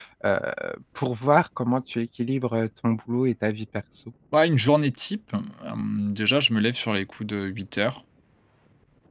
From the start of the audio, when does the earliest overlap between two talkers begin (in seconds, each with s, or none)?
none